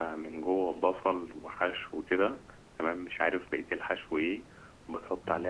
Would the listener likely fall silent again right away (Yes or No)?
Yes